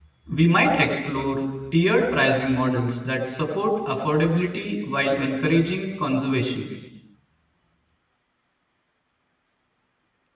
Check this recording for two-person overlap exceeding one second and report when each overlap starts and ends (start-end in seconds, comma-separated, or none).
none